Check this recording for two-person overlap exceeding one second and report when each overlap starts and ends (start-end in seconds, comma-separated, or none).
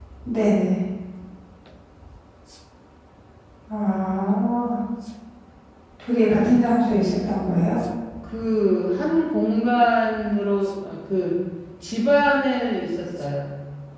none